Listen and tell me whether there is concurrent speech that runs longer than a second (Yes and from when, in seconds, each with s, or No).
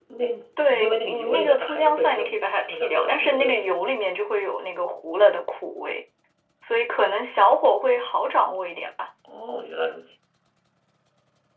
Yes, from 0.7 s